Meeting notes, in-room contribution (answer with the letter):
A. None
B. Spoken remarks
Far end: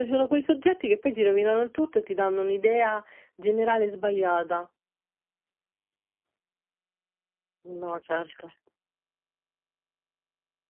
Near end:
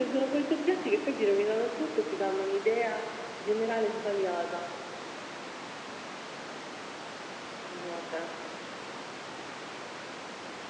A